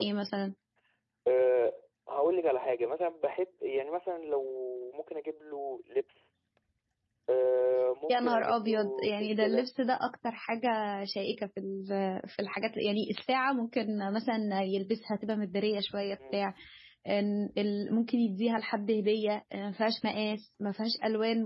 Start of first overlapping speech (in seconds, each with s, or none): 8.1 s